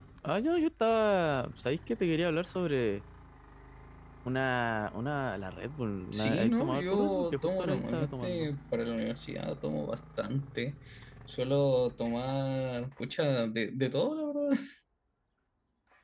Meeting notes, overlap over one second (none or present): present